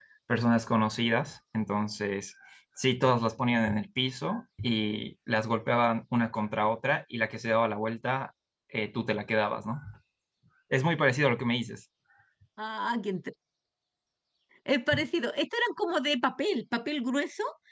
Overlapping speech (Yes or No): No